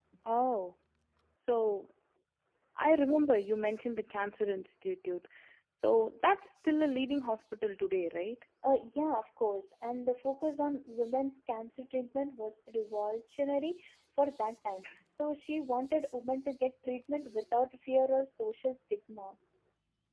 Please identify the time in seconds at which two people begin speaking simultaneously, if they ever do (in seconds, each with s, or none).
none